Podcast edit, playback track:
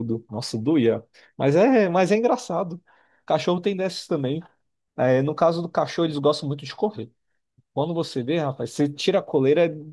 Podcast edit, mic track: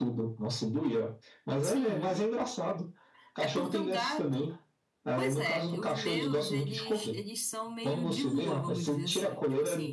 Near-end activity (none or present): present